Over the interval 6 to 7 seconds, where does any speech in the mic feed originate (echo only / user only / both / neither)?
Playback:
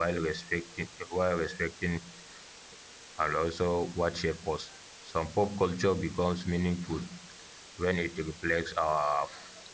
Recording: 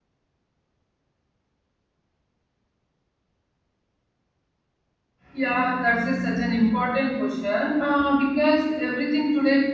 user only